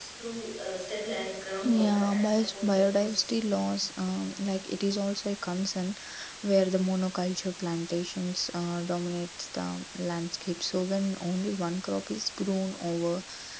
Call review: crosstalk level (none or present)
present